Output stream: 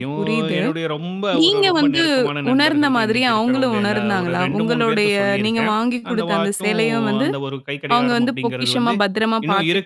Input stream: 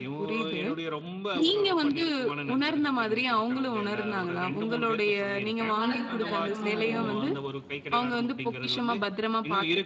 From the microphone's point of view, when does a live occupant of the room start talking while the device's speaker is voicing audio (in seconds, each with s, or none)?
5.8 s